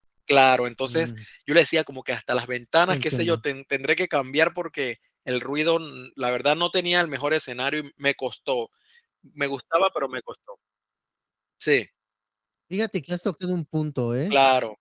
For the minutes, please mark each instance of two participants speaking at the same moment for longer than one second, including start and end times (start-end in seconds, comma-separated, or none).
none